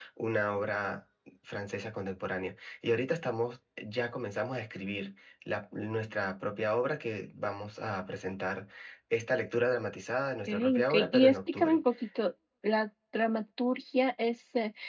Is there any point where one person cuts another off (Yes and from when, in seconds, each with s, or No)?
Yes, from 10.5 s